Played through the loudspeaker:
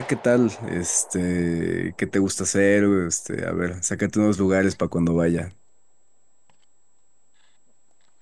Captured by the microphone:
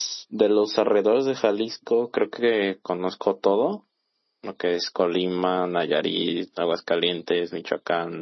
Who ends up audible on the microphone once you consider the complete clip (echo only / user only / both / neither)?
user only